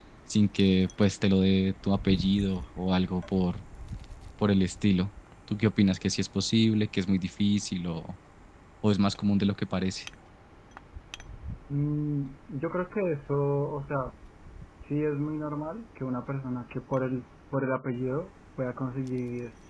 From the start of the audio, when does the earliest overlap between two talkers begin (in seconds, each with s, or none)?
none